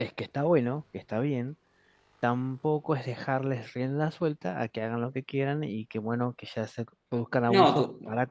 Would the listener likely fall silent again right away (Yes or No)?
No